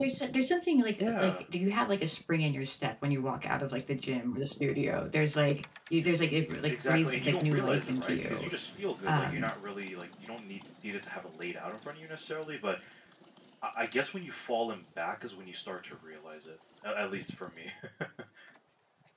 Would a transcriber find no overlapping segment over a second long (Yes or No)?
No